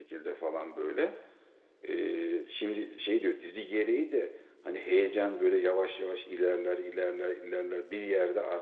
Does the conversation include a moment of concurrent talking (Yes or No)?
No